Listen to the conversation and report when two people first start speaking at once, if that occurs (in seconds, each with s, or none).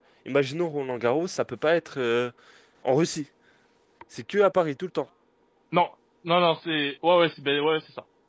none